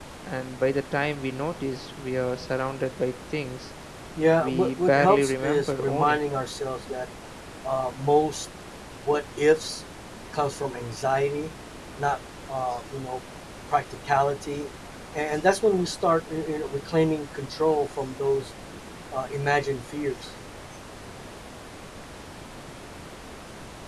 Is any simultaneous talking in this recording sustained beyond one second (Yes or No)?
Yes